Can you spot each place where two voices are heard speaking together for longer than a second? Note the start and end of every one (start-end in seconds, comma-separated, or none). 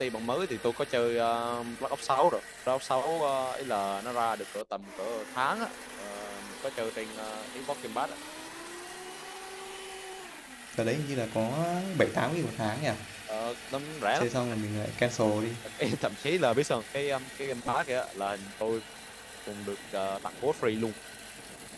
none